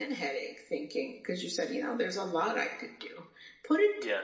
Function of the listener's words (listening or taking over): listening